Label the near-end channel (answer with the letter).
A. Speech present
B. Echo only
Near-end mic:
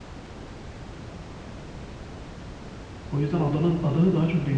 A